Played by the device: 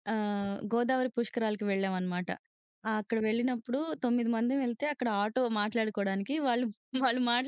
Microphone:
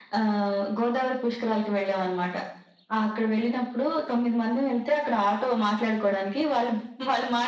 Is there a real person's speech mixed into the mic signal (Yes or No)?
No